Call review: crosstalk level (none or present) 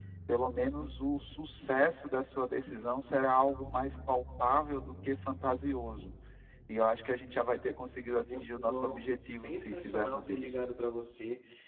present